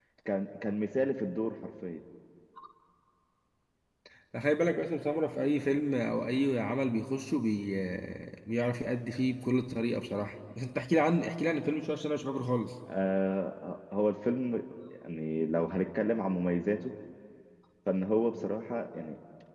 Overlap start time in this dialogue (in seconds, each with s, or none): none